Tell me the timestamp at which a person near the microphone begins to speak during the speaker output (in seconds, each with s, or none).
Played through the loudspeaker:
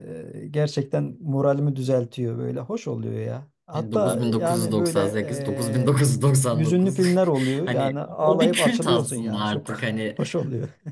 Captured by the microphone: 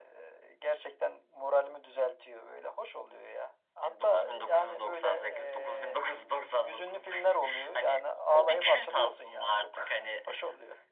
none